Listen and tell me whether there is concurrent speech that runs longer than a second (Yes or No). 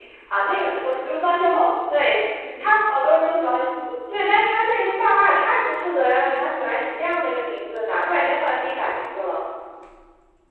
No